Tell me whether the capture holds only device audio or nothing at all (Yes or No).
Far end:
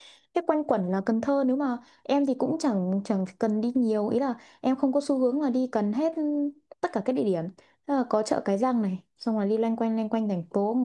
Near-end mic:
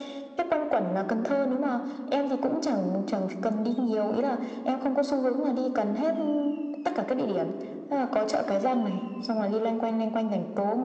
Yes